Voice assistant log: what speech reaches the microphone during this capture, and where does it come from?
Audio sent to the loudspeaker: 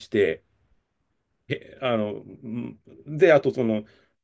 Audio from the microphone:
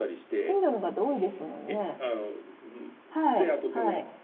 both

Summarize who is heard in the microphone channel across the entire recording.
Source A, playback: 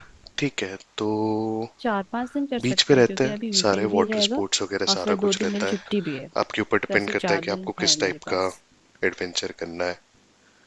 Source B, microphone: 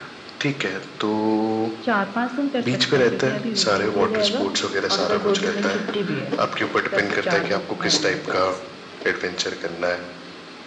echo only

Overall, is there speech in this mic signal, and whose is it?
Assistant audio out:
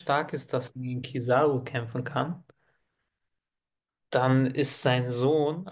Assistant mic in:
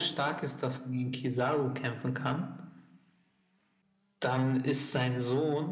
echo only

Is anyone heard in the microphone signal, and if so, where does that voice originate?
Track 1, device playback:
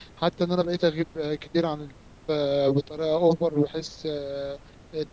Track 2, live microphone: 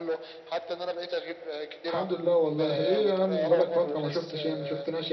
both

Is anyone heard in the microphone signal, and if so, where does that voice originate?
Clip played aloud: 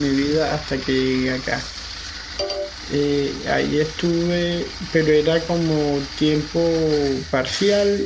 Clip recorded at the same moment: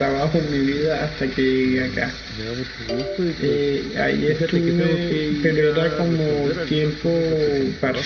both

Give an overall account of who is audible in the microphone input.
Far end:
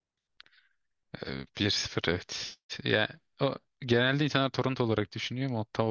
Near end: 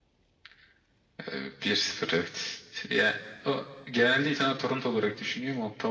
echo only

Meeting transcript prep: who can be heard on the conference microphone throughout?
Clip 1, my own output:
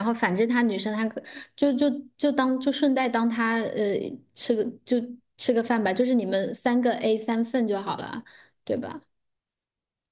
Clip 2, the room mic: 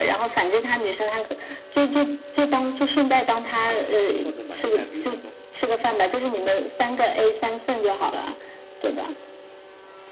both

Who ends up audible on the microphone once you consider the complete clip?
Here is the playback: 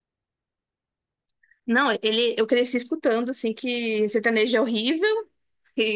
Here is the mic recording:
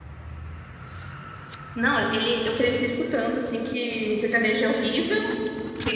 echo only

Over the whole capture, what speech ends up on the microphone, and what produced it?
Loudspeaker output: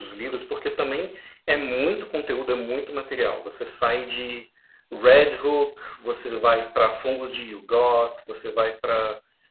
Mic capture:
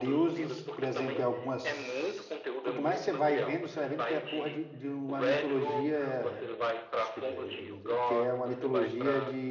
both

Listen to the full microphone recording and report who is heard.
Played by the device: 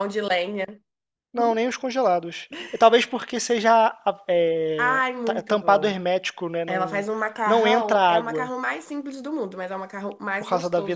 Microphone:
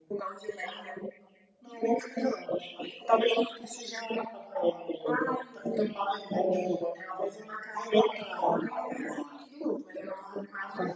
echo only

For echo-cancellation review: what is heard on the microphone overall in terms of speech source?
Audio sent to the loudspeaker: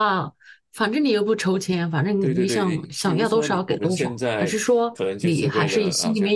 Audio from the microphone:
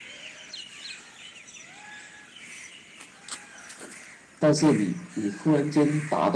user only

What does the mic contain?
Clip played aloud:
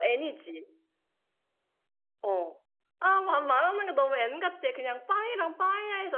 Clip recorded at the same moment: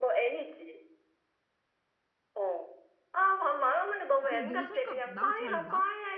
both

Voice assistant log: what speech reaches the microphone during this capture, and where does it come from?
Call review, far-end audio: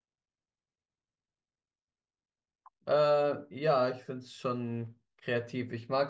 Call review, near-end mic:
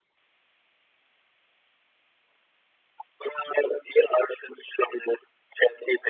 echo only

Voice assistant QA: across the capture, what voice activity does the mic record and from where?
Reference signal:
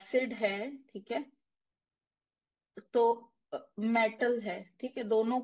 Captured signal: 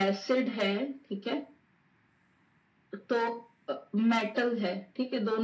echo only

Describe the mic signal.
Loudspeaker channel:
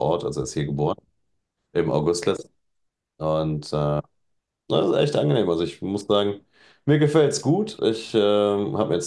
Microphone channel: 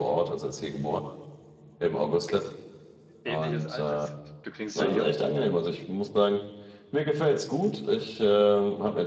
both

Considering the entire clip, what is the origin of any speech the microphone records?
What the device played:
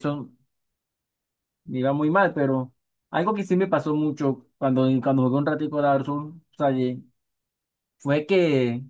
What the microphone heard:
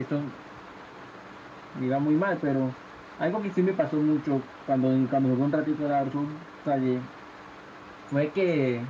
echo only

